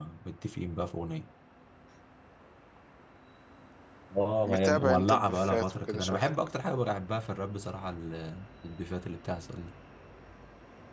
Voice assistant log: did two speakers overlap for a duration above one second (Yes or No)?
Yes